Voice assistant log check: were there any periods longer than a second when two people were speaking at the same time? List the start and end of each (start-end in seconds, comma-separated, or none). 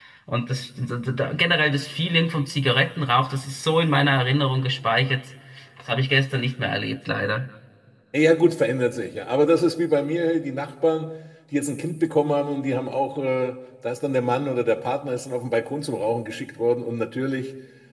none